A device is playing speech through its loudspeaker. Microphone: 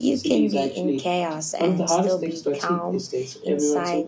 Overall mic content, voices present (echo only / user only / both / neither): echo only